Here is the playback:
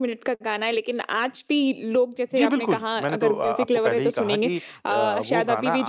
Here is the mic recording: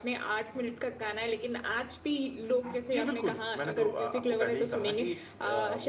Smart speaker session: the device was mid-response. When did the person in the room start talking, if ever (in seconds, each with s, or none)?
none